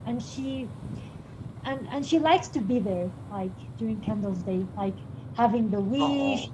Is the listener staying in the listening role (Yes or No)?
Yes